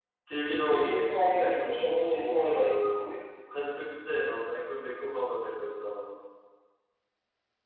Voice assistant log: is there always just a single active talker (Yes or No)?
No